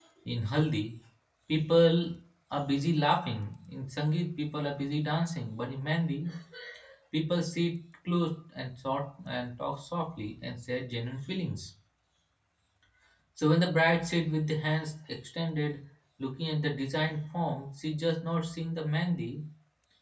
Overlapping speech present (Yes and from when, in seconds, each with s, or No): No